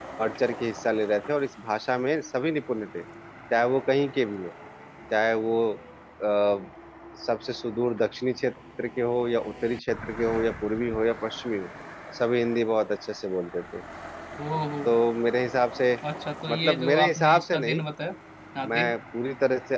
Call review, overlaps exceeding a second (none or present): present